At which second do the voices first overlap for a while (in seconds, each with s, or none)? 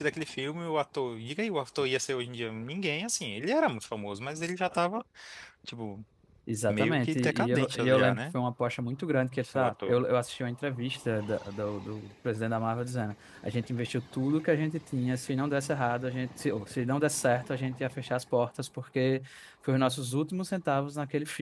6.7 s